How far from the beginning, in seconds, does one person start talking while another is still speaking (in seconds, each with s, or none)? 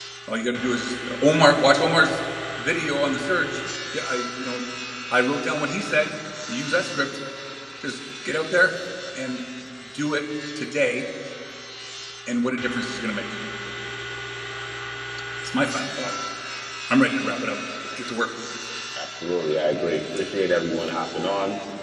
none